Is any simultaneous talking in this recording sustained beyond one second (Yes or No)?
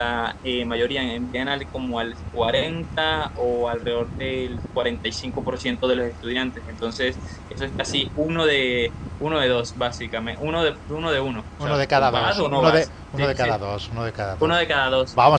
Yes